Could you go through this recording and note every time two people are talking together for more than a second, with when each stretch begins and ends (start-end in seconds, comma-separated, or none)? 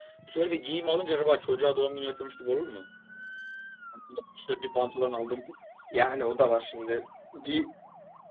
none